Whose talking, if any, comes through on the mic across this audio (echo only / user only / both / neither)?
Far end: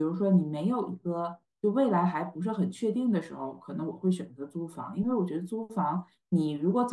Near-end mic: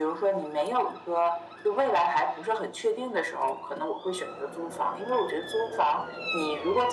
echo only